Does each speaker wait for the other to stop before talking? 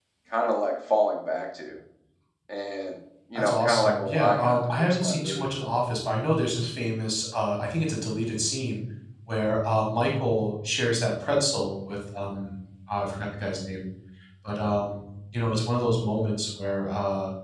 No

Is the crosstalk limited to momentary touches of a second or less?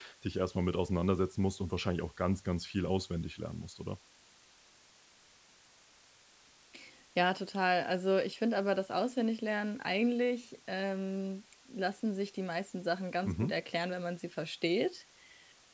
Yes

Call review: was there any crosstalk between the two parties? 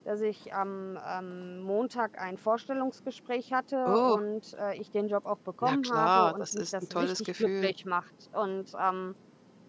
Yes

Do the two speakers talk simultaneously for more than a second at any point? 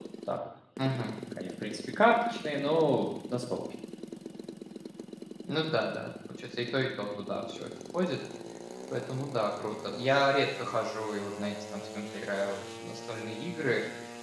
No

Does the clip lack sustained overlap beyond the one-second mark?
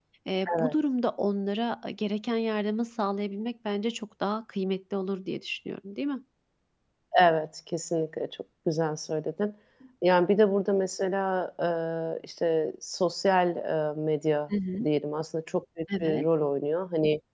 Yes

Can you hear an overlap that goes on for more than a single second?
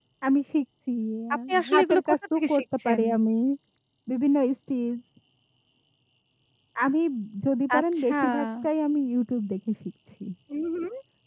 Yes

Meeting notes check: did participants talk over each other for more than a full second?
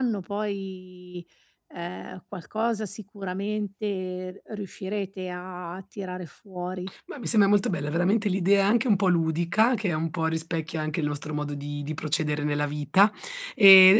No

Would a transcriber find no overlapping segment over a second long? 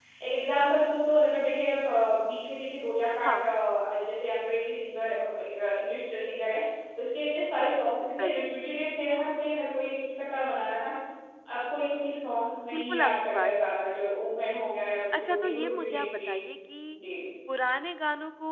No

